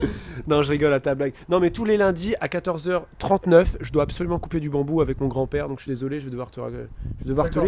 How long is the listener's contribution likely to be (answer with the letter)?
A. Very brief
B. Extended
B